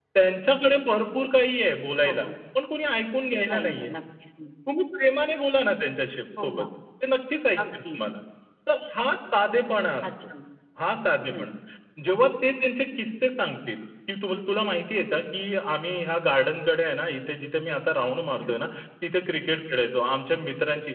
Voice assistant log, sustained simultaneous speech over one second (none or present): none